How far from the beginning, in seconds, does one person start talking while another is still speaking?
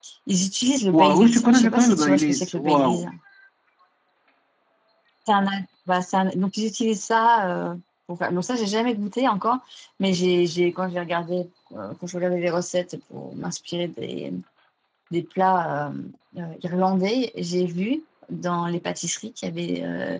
0.9 s

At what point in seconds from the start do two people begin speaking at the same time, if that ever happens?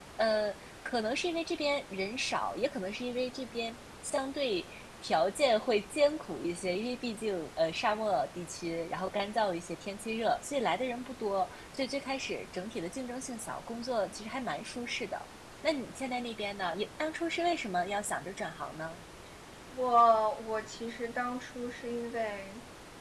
none

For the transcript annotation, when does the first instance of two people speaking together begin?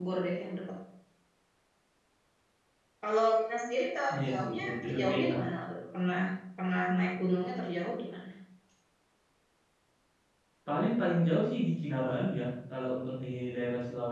4.1 s

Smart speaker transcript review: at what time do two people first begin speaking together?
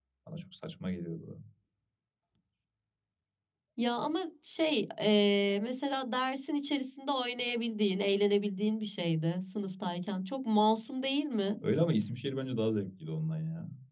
none

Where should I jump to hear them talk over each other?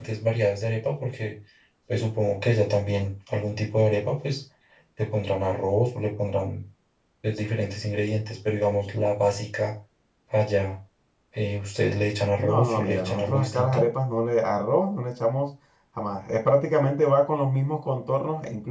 12.4 s

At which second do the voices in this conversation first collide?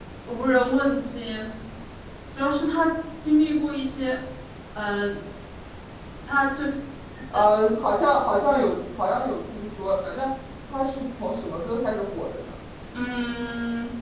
none

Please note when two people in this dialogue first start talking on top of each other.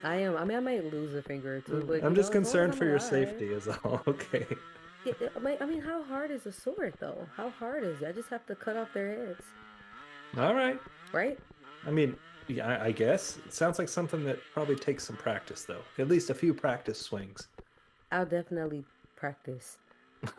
1.7 s

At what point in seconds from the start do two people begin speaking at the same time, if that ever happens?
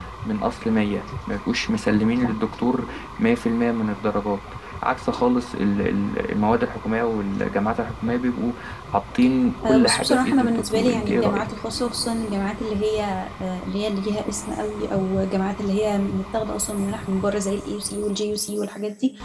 9.7 s

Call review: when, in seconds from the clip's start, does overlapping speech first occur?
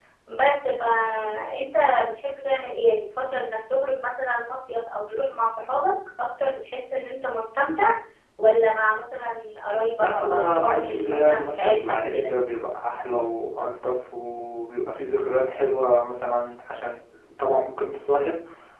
10.0 s

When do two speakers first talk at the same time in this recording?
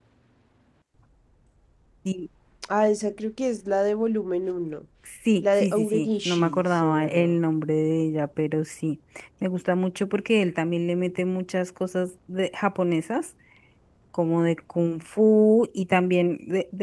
5.4 s

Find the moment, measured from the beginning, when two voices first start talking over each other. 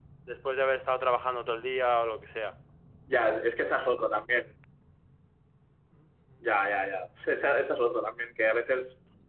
none

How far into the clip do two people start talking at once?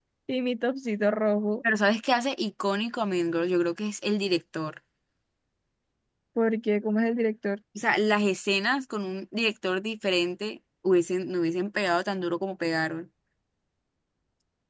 none

